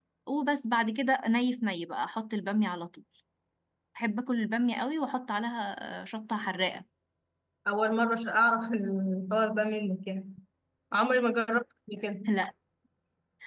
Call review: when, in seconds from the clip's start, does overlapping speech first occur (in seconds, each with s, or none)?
none